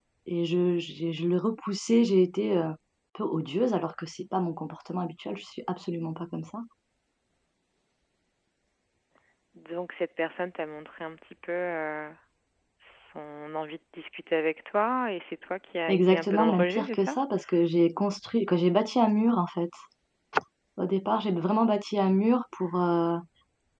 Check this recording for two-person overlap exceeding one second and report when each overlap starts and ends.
15.9-17.1

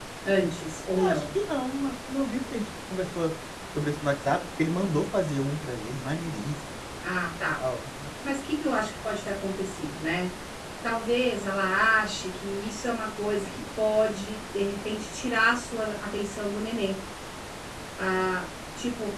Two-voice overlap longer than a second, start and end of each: none

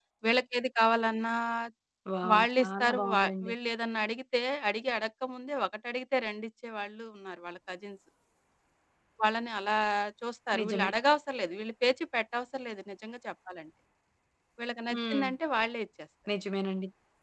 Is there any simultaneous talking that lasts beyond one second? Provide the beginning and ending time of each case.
2.3-3.5

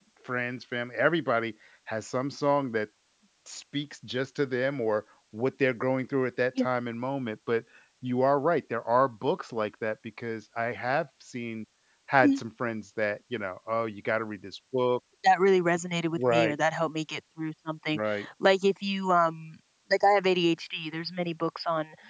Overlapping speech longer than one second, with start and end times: none

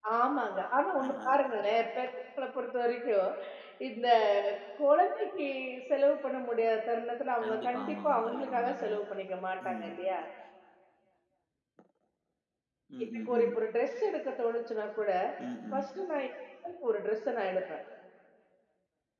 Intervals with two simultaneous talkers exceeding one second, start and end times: 7.4-9.0

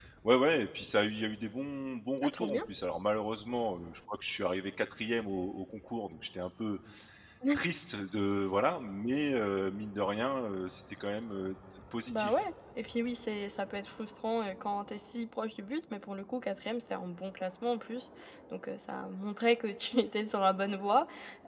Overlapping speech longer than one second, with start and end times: none

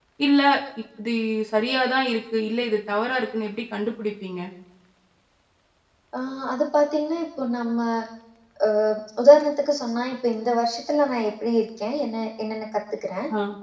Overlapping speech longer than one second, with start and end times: none

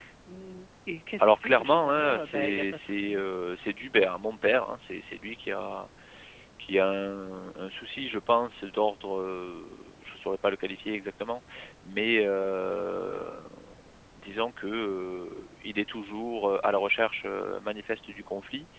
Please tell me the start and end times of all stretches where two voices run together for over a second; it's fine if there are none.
1.2-3.2

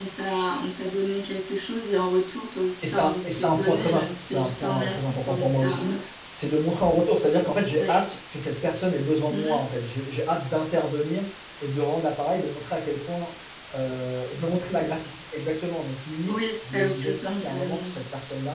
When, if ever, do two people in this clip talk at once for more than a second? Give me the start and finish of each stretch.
2.9-6.0, 16.3-17.9

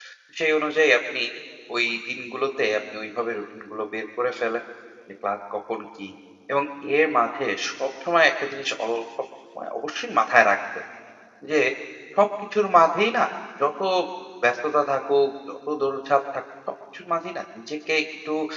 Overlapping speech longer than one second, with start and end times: none

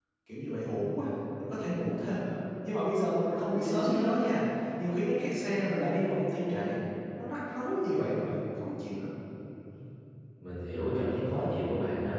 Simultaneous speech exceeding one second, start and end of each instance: none

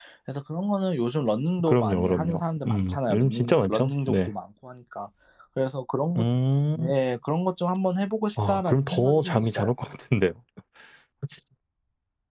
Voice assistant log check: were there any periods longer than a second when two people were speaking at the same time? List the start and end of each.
1.6-4.3, 8.5-9.7

